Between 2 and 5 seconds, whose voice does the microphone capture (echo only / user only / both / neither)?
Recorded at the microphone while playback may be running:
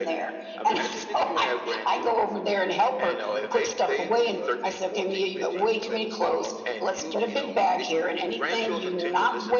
both